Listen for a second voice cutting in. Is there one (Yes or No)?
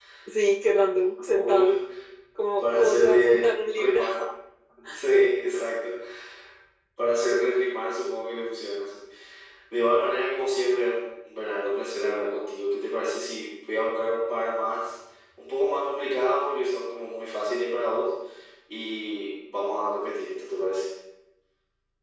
Yes